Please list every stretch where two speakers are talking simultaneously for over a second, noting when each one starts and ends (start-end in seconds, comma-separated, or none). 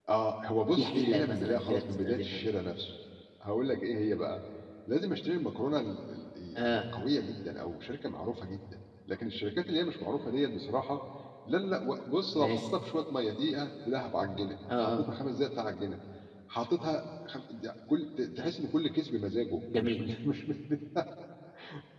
0.8-2.4